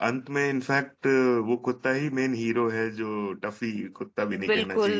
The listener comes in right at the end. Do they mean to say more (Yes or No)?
Yes